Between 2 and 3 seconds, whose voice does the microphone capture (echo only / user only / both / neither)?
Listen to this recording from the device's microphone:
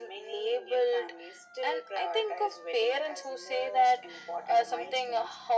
echo only